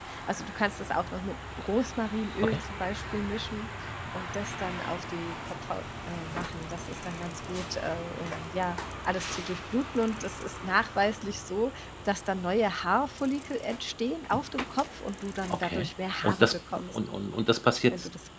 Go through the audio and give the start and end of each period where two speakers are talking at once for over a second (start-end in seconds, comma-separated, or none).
15.5-17.0